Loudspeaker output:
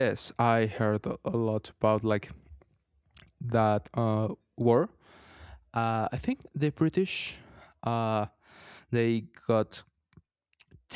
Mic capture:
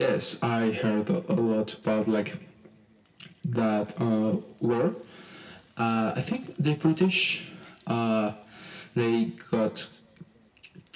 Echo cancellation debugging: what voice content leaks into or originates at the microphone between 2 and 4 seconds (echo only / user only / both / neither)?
echo only